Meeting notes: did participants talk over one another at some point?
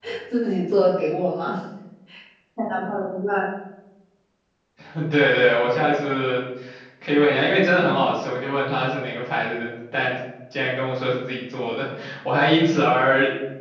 No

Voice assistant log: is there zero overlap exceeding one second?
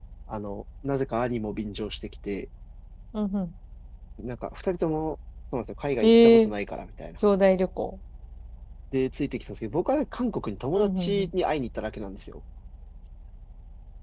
Yes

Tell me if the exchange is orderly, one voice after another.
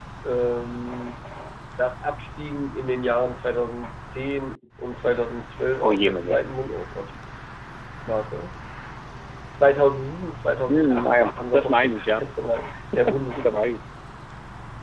No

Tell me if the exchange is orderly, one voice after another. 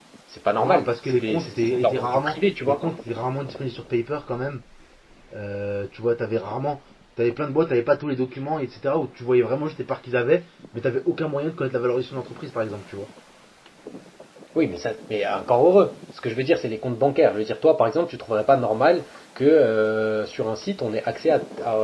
No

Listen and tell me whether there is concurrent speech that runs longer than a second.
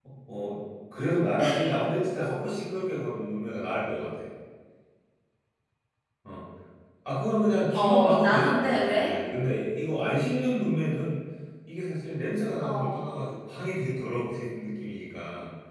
Yes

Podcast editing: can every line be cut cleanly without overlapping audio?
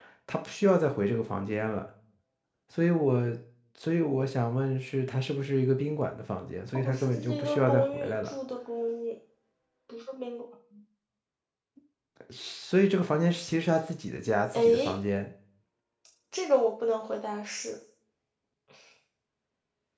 No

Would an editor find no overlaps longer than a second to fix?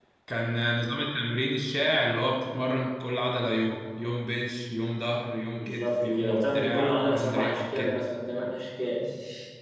No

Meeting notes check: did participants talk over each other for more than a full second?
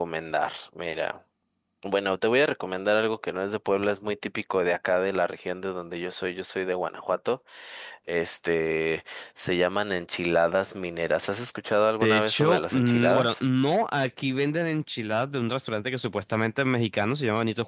Yes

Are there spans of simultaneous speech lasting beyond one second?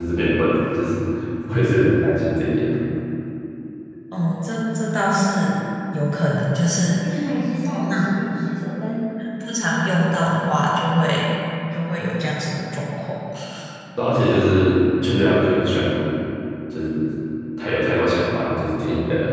No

